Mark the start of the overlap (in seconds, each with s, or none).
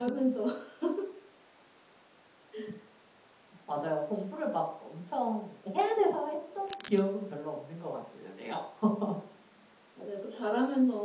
none